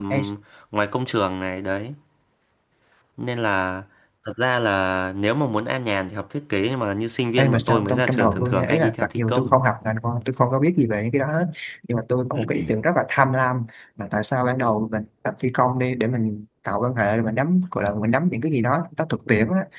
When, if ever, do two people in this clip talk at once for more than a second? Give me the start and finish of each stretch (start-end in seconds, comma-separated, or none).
7.4-9.6